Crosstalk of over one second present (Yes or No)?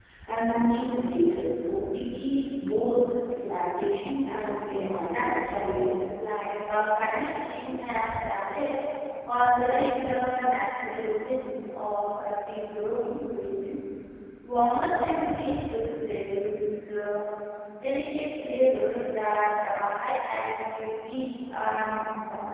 Yes